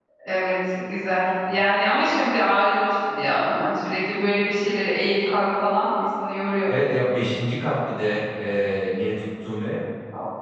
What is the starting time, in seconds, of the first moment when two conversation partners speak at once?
none

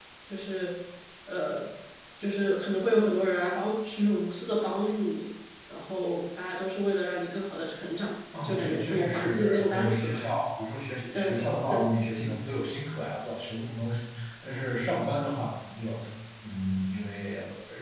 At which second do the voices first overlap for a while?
8.4 s

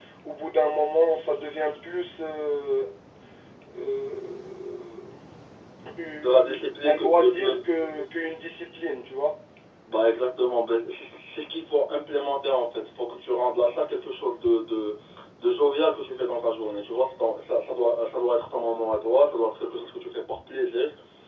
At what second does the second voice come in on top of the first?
6.2 s

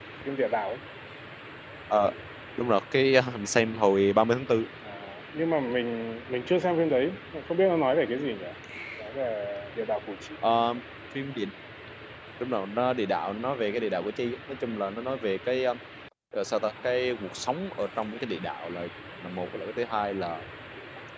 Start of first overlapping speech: none

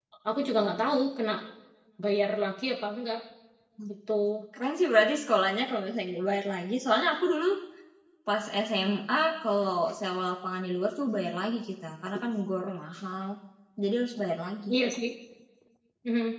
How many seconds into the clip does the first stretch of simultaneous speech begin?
none

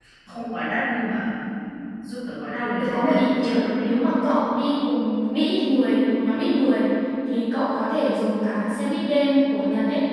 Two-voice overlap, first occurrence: 2.5 s

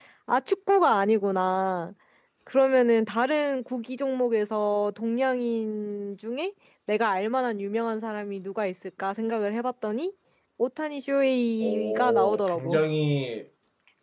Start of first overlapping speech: 11.6 s

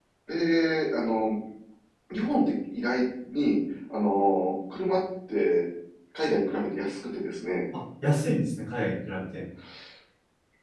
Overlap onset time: none

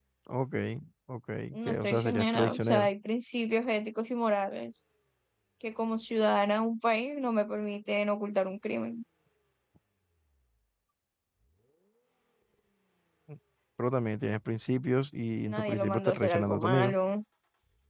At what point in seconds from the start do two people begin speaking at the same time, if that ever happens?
1.5 s

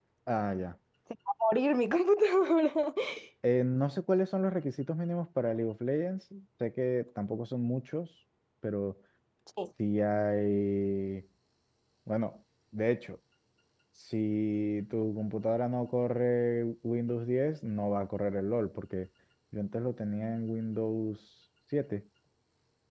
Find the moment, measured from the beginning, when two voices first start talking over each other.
none

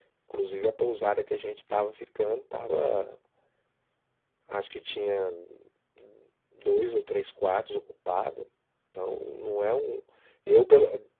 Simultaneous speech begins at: none

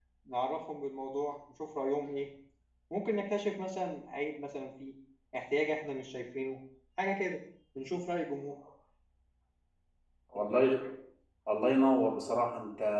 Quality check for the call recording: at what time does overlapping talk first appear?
none

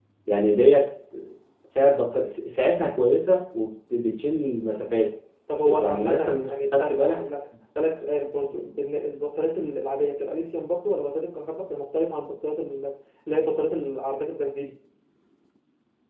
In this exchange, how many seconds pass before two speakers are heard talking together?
5.8 s

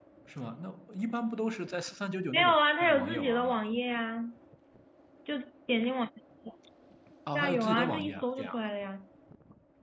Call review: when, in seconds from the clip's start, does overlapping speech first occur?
2.3 s

